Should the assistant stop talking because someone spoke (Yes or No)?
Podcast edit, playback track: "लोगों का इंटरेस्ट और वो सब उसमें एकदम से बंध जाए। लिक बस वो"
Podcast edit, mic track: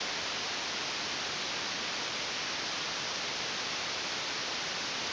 No